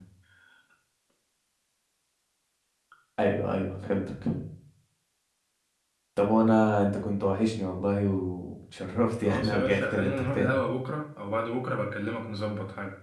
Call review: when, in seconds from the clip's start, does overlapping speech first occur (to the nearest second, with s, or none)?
9 s